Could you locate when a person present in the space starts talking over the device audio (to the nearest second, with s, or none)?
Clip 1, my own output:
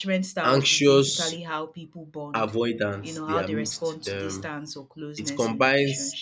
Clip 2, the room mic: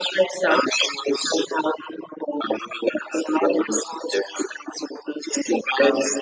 none